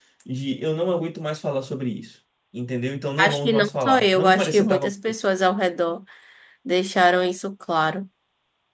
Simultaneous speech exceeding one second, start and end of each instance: 3.2-4.9

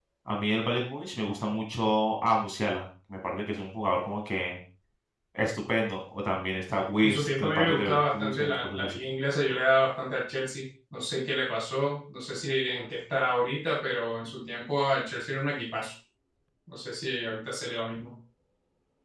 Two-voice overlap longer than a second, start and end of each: 7.0-9.0

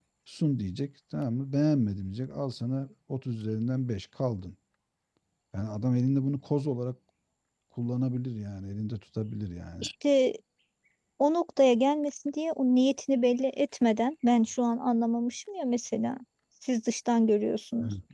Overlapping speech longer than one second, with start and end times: none

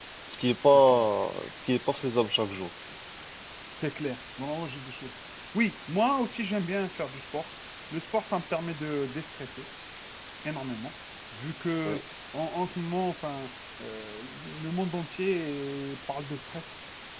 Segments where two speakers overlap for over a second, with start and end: none

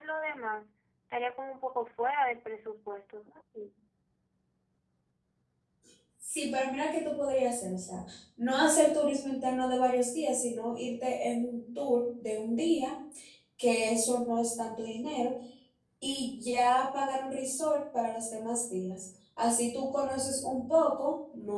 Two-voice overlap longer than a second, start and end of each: none

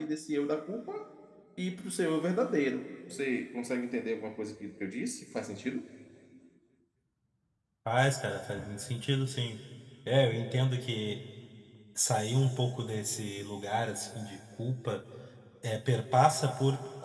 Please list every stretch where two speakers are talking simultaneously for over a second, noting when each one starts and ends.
none

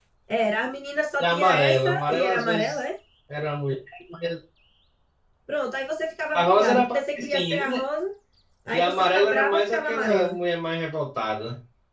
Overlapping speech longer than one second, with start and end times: 1.2-2.8, 6.3-7.8, 8.7-10.4

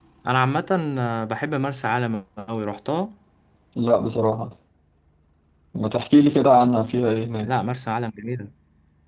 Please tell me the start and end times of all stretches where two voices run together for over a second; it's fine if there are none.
none

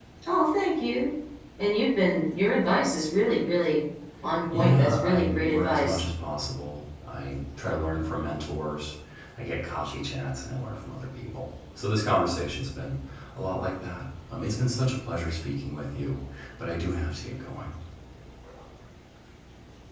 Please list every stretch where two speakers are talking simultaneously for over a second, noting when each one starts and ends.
4.5-6.0

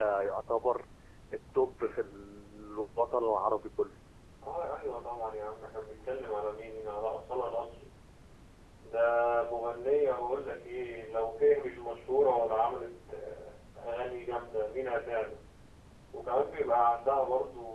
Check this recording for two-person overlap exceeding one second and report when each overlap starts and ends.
none

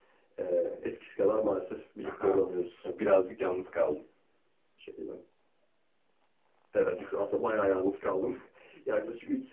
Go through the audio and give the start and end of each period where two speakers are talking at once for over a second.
none

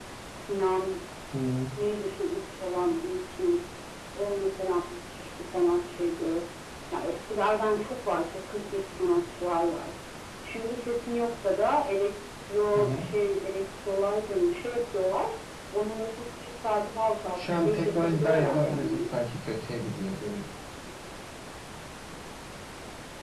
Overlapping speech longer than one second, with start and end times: 17.4-19.1

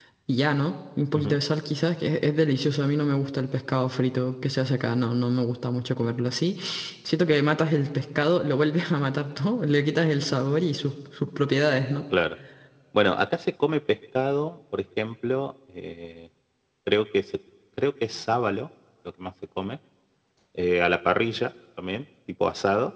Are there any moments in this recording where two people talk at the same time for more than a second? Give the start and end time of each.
none

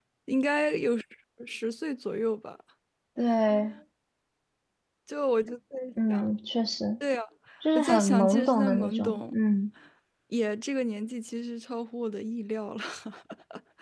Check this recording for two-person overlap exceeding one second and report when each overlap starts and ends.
7.8-9.3

